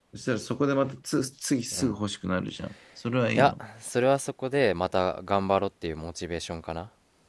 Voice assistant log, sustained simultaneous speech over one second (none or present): none